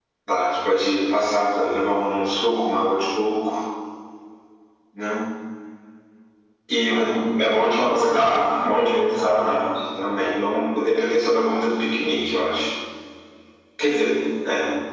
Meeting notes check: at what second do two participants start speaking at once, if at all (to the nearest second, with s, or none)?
7 s